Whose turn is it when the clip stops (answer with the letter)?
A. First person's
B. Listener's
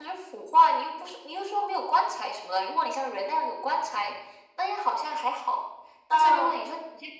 A